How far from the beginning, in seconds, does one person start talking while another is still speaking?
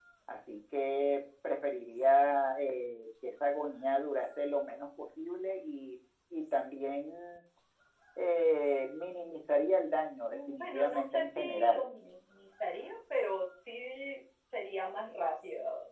10.3 s

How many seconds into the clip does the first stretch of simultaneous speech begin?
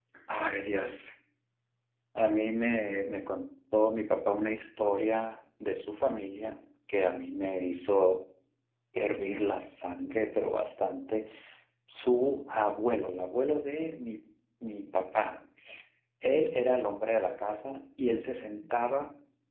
none

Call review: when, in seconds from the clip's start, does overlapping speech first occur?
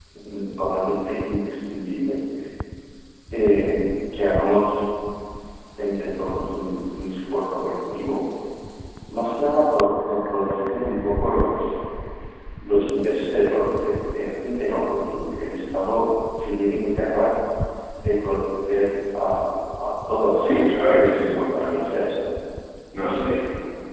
20.4 s

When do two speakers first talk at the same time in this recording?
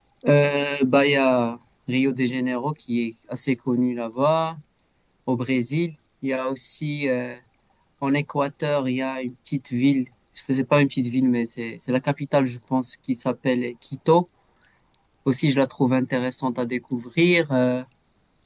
none

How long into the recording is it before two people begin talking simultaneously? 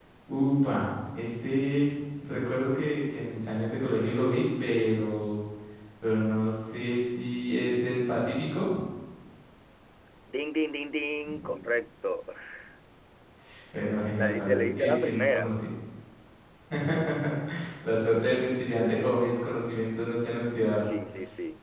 14.2 s

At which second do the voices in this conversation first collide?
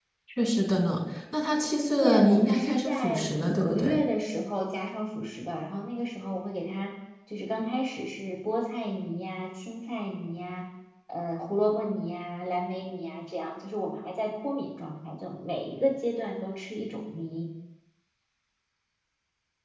2.0 s

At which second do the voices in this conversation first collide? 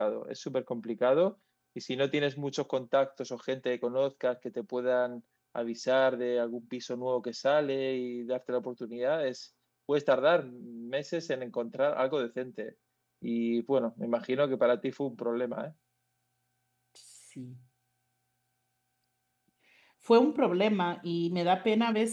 none

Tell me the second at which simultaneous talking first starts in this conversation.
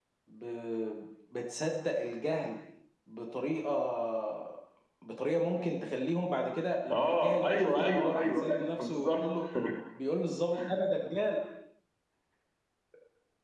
6.9 s

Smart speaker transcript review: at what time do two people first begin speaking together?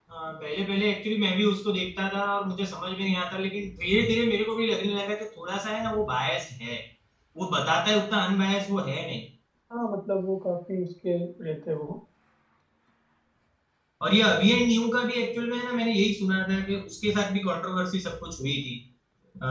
none

